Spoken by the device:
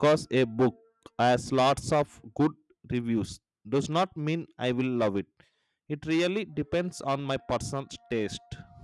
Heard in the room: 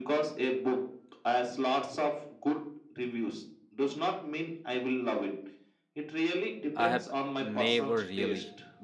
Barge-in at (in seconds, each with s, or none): 6.7 s